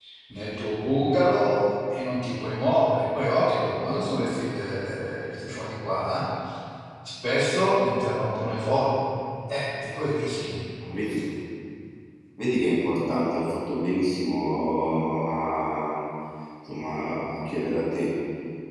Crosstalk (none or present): none